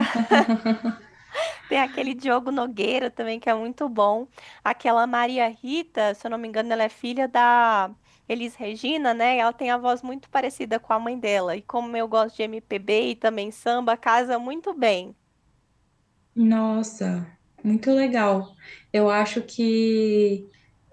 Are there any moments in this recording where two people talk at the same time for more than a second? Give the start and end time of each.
none

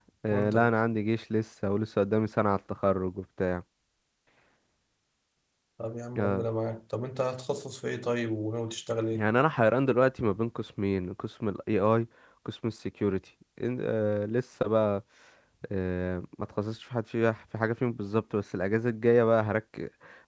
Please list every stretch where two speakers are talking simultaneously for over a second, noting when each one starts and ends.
none

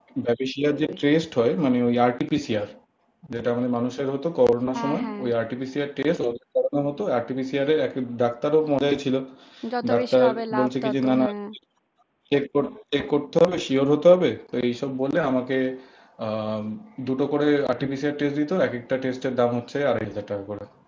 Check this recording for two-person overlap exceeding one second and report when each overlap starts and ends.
9.9-11.2

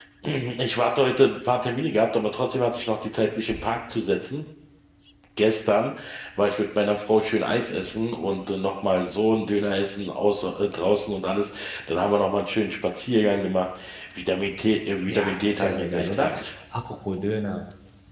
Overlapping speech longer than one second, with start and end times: 15.1-16.3

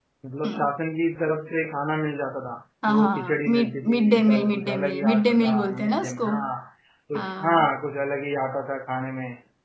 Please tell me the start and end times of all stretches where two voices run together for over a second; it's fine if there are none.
2.9-6.3

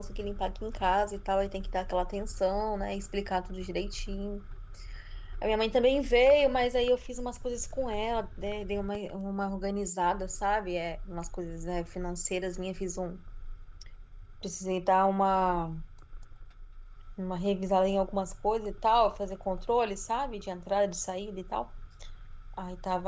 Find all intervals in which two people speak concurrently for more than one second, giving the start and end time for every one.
none

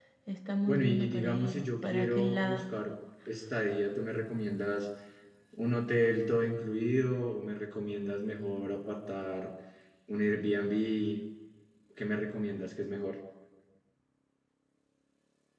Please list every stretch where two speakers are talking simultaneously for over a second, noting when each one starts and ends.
0.7-2.6

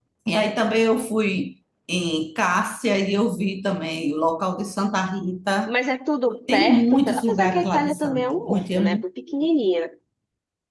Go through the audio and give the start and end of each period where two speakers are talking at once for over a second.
6.5-9.0

